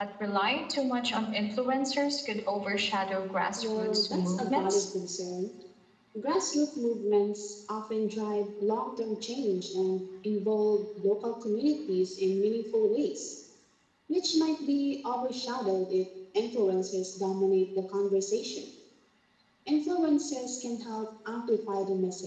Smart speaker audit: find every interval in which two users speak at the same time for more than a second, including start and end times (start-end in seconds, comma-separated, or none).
3.6-4.9